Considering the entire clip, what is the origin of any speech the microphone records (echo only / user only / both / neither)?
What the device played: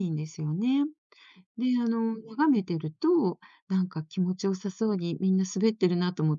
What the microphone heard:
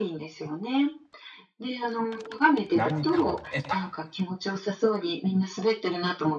both